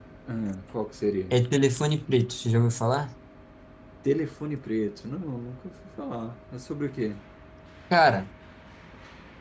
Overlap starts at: none

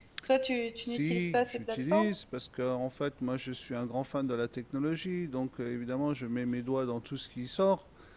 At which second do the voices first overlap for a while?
0.8 s

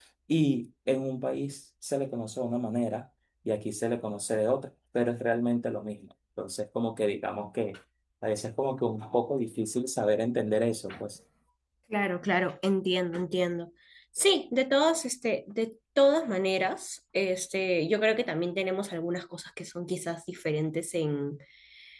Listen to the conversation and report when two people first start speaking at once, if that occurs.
none

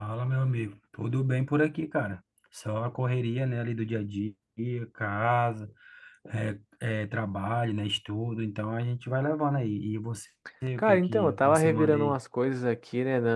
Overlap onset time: 10.8 s

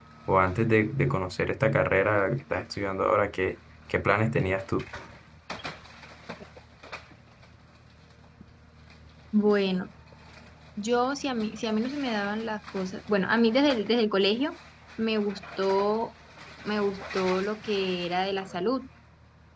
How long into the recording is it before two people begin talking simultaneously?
none

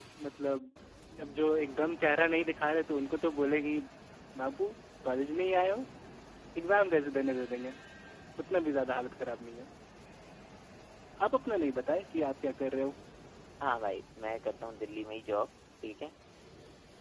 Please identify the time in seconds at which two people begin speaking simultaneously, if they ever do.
none

